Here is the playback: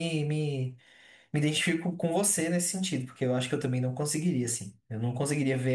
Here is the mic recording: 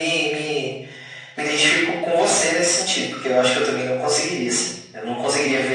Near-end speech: none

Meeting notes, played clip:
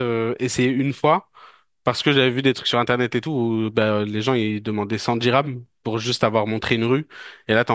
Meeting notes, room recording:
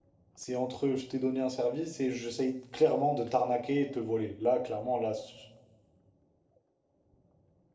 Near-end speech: present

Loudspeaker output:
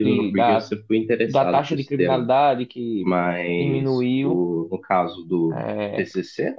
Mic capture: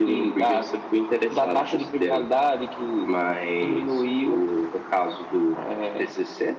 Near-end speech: none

